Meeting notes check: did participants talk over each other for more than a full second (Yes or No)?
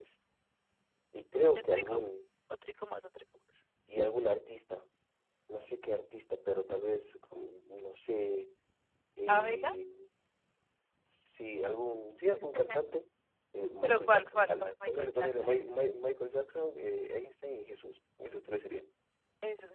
Yes